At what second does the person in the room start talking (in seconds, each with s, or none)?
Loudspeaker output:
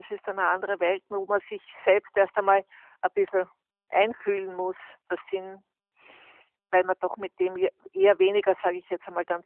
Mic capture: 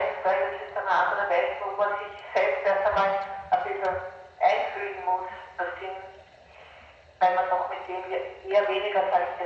none